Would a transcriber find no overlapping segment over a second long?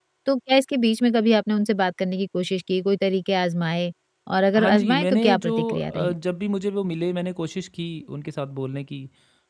No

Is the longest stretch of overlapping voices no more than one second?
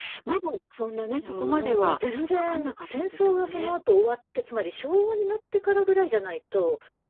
No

